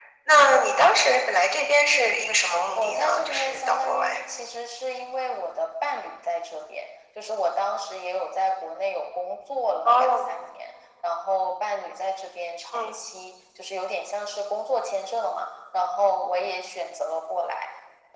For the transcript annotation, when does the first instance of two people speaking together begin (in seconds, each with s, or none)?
2.7 s